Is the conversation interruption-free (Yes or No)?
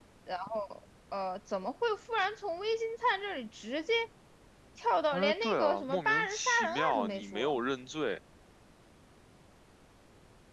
No